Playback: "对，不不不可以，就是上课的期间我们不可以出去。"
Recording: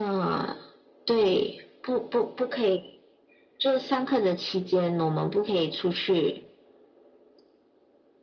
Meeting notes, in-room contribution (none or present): none